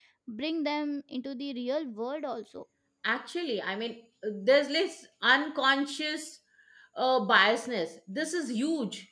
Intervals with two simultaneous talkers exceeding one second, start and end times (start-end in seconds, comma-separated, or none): none